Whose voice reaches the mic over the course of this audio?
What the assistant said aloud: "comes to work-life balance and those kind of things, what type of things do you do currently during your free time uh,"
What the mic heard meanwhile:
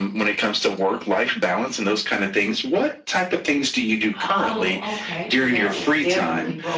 both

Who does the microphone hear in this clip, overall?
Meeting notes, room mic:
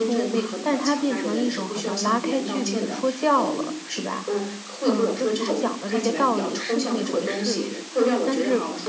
both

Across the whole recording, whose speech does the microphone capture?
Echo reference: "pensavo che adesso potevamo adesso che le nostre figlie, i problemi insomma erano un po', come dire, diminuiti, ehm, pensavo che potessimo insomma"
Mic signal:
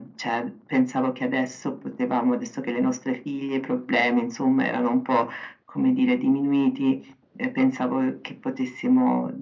echo only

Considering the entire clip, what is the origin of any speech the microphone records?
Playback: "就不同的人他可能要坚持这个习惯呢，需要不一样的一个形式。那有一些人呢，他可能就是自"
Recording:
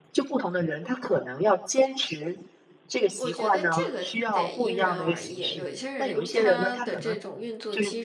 both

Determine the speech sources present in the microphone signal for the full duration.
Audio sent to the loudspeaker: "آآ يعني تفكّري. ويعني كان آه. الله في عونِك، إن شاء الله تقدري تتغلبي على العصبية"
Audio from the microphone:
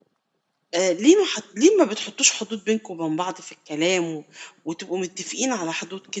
user only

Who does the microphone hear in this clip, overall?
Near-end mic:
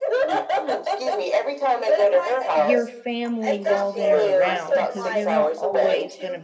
both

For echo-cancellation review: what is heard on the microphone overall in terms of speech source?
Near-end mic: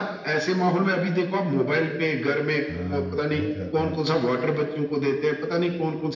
both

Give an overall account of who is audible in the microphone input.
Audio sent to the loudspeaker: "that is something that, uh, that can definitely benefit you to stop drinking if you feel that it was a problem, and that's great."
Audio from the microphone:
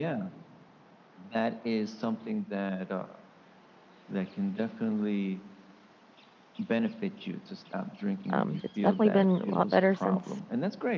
both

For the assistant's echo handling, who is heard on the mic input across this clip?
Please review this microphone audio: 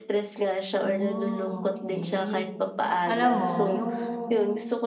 both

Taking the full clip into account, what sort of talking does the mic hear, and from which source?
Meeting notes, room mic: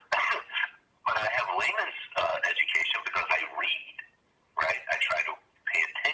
echo only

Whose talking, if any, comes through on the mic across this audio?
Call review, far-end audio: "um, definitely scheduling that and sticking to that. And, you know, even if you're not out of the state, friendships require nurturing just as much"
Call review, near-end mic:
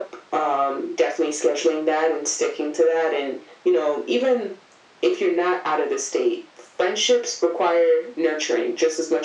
echo only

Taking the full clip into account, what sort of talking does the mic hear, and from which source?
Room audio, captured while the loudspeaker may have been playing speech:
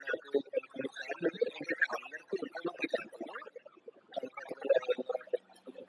echo only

